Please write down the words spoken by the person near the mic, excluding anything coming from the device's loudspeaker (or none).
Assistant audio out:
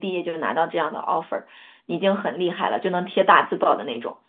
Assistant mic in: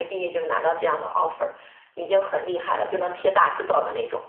然后